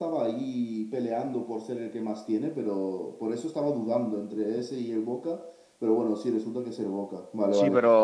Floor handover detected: Yes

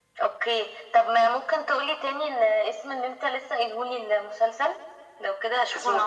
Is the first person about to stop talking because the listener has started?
Yes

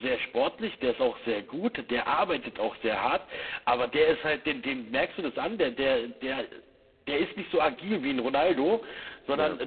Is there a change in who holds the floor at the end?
No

